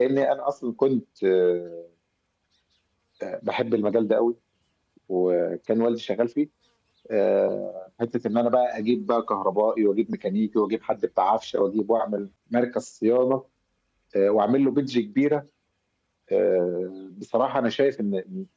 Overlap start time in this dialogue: none

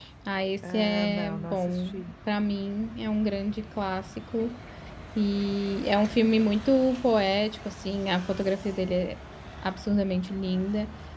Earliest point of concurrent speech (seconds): 0.6 s

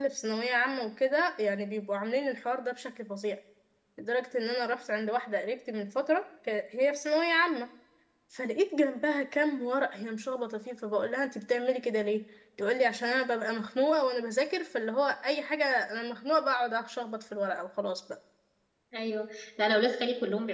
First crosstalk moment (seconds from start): none

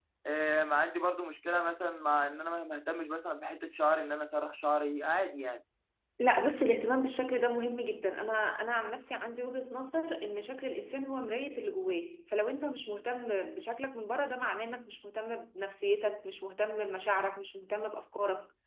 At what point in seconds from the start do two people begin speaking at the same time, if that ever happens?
none

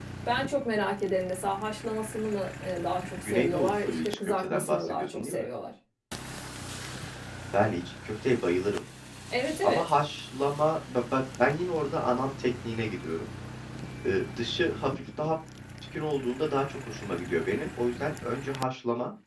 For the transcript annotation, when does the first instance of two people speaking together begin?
3.2 s

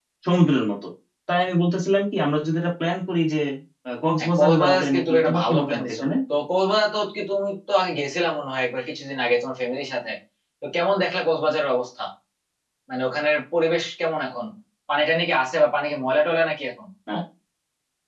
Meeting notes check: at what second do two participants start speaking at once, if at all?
4.2 s

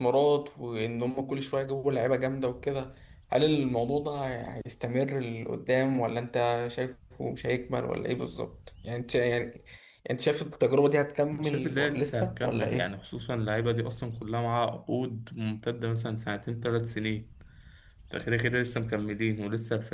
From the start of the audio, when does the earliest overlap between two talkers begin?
11.3 s

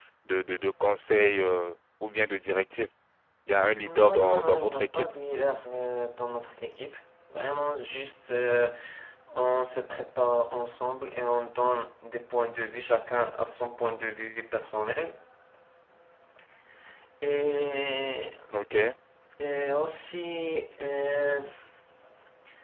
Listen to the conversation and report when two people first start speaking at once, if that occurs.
3.8 s

